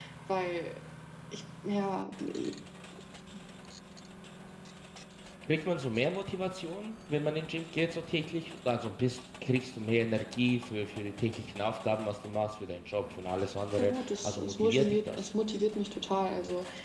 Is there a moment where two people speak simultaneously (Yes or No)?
Yes